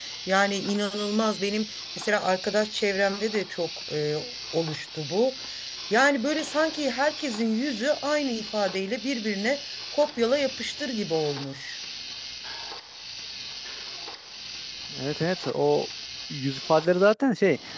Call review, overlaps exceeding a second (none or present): none